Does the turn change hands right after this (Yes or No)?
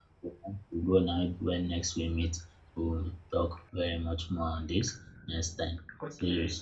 Yes